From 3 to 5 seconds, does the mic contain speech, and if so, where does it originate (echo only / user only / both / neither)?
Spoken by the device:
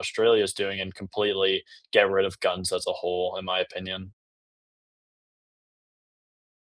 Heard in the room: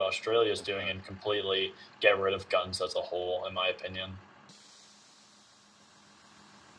echo only